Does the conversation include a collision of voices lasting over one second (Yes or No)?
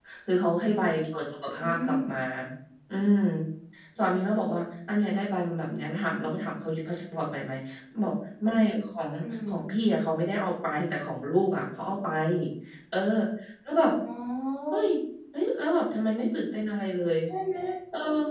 No